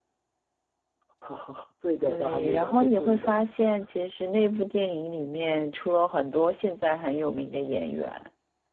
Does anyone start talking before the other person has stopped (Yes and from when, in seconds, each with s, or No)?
Yes, from 2.0 s